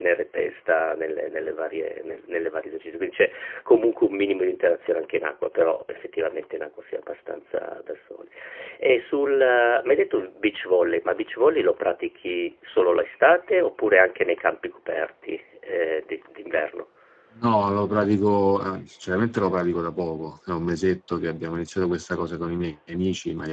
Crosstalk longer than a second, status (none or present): none